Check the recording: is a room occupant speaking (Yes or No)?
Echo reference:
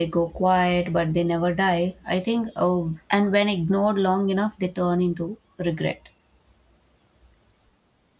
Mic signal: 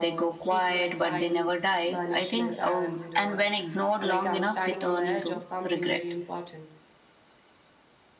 Yes